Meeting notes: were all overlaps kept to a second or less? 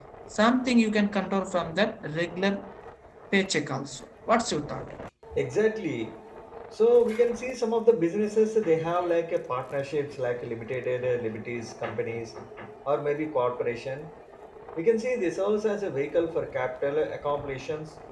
Yes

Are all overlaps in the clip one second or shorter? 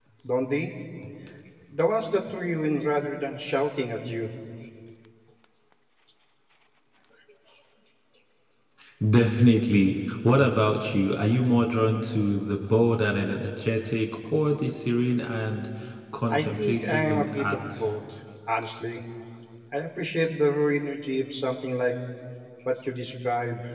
No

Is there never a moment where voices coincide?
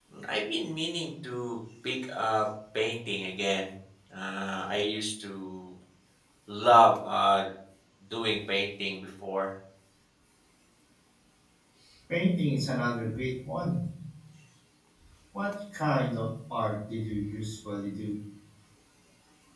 Yes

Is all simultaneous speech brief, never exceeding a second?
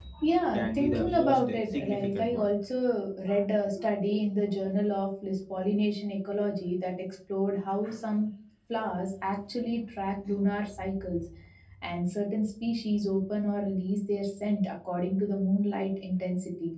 No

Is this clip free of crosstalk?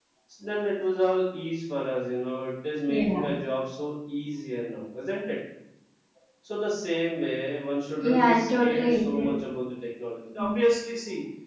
No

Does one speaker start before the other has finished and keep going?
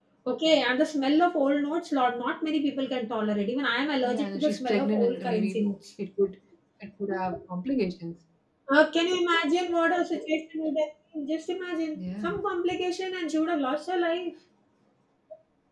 Yes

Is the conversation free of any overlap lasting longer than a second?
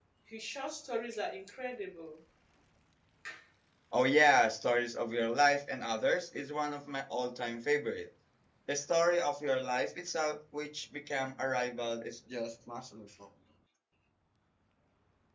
Yes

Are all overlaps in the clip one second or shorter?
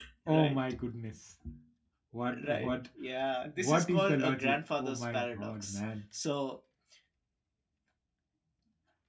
No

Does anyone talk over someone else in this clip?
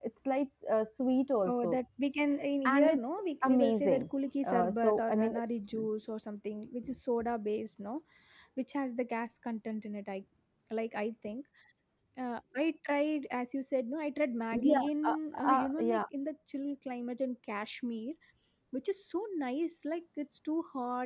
Yes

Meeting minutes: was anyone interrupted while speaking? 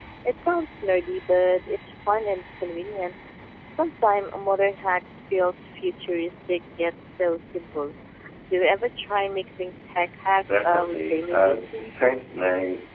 Yes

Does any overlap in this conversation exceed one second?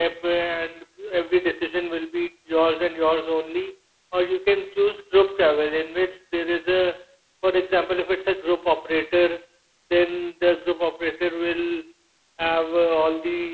No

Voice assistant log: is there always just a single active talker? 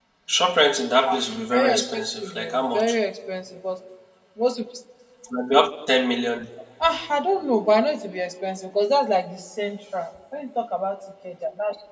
No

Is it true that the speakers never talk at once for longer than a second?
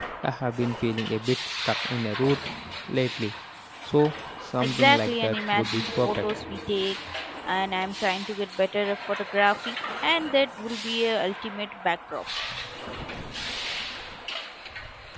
No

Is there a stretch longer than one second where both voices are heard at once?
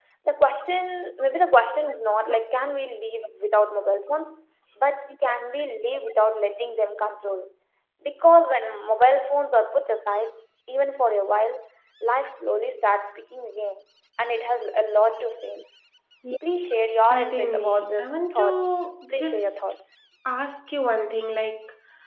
Yes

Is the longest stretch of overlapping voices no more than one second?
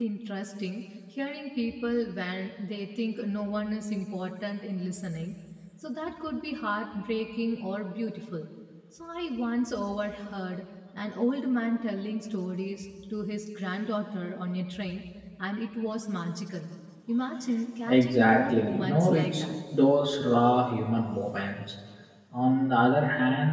No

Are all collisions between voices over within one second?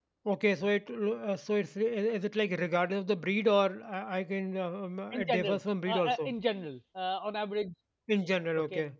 No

